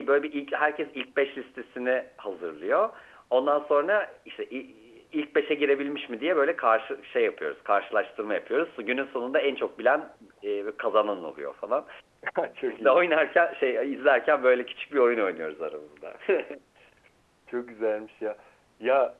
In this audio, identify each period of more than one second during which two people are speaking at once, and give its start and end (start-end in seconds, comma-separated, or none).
none